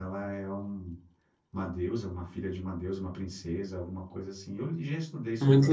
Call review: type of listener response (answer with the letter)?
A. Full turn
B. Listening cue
A